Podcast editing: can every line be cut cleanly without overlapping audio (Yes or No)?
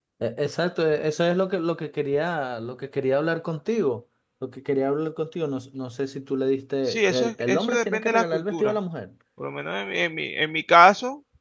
No